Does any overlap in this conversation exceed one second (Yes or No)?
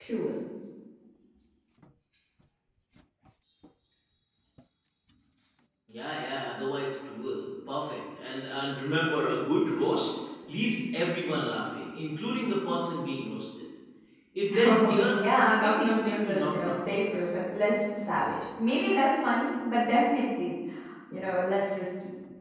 Yes